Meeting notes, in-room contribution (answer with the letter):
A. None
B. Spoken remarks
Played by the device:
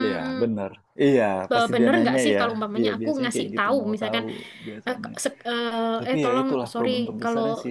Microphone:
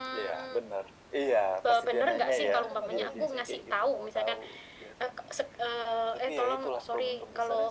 B